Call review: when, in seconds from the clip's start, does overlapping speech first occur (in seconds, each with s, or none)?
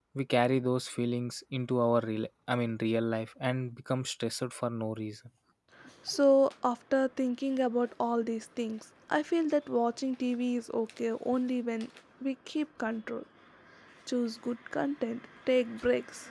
none